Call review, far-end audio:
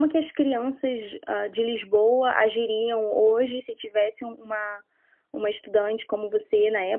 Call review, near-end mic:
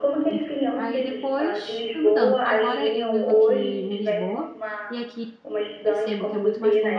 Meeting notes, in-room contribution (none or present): present